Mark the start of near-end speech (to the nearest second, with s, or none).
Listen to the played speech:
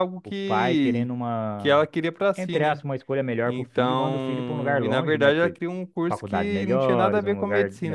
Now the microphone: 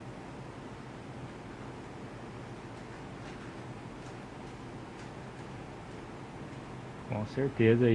7 s